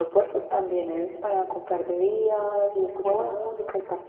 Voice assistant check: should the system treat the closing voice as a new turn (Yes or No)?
No